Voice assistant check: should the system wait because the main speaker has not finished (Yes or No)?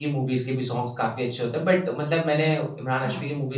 Yes